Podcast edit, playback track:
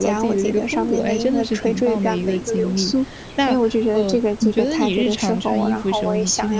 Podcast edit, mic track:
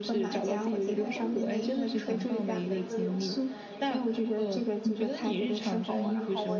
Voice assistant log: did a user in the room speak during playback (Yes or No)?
Yes